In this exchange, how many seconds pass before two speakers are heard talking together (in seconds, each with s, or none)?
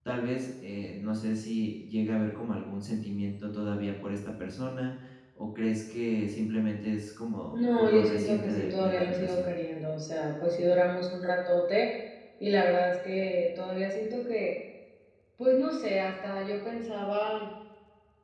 7.5 s